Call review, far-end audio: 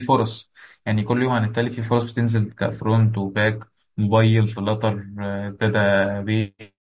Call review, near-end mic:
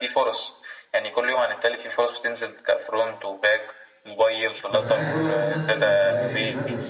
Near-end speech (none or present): present